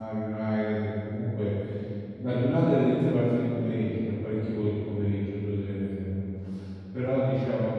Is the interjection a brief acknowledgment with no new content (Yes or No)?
Yes